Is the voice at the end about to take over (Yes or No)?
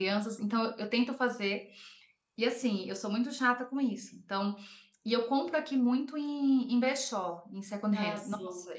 No